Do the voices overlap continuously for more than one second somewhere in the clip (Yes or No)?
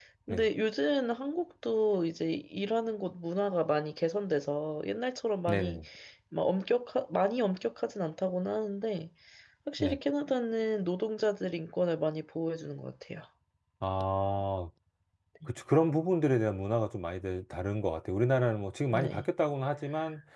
No